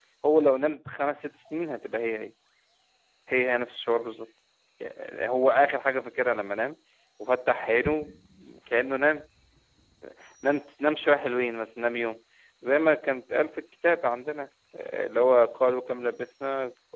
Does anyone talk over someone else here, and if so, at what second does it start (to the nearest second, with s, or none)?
none